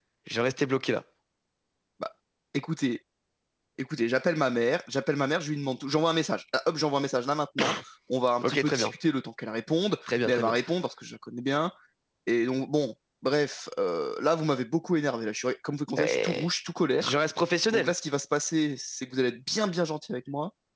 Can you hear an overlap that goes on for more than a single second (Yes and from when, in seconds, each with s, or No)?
No